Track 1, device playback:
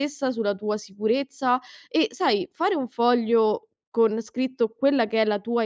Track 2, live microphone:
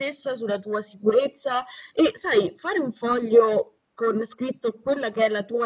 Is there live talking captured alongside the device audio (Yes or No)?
No